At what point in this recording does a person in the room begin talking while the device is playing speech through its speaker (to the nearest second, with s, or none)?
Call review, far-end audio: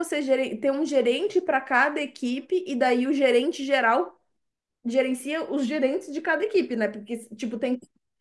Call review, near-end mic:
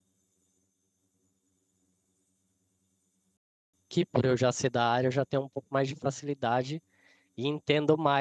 4 s